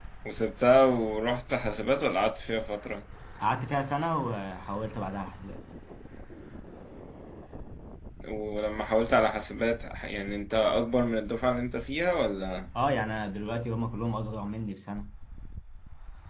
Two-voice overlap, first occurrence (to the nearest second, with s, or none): none